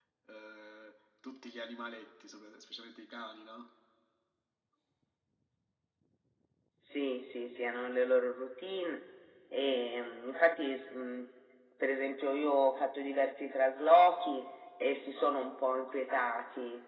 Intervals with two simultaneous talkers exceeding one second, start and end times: none

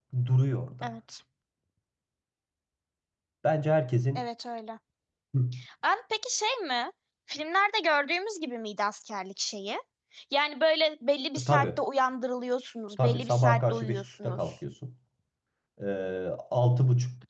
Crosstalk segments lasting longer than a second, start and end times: 13.0-14.4

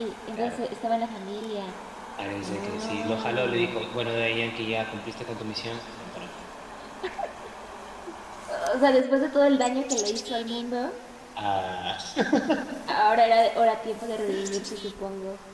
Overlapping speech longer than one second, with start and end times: 2.4-3.7

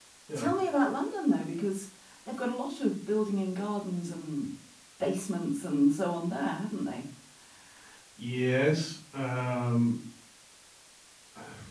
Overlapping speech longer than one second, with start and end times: none

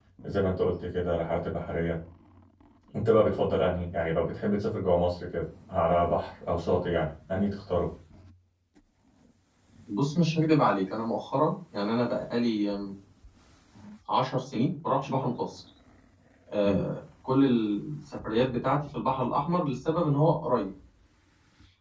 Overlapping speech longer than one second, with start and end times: none

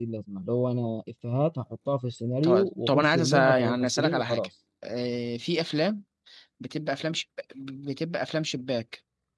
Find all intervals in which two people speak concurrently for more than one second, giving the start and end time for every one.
2.4-4.5

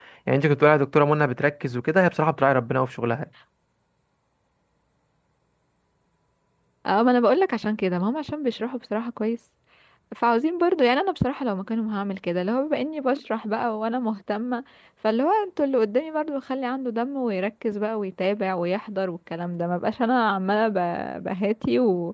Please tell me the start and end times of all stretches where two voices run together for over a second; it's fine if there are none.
none

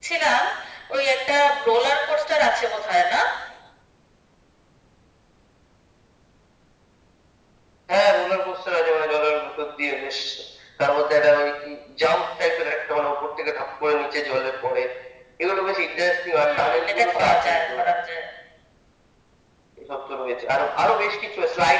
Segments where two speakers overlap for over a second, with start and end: 16.4-17.8

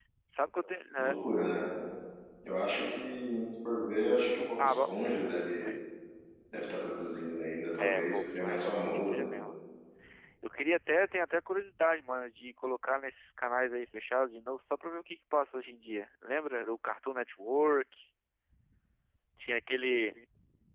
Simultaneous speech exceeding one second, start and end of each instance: 7.8-9.3

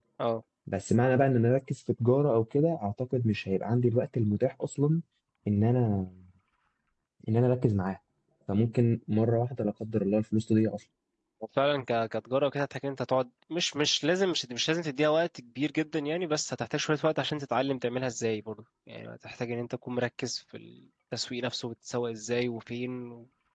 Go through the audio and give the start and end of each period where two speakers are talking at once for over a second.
none

